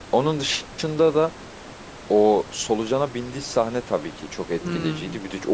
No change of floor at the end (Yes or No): Yes